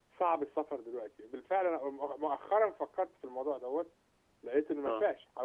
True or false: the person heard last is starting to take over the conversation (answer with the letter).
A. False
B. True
A